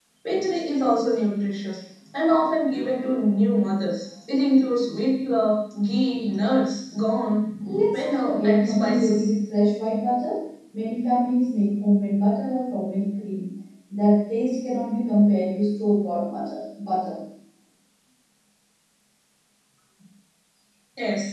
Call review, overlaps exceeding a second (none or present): present